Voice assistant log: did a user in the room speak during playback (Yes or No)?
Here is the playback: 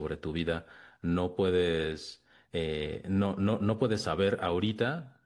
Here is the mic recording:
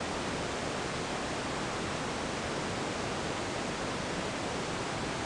No